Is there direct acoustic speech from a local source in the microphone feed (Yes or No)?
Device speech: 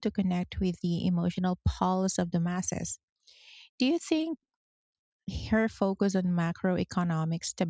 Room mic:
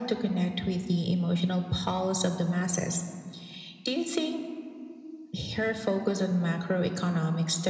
No